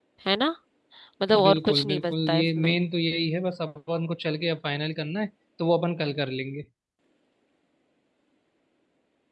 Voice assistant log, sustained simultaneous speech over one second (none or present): present